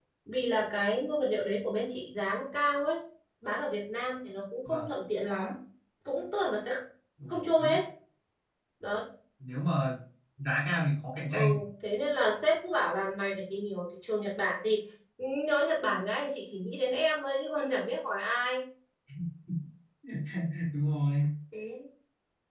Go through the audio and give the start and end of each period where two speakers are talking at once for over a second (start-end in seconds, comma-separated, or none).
none